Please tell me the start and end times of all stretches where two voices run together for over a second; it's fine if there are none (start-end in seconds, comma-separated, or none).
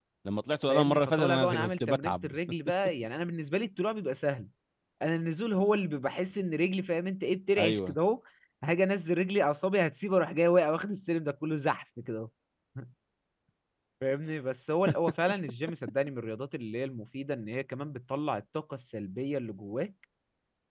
0.7-2.3